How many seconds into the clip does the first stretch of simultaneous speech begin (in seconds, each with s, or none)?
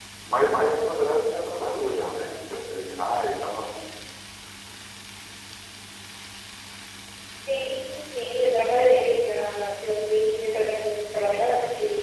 none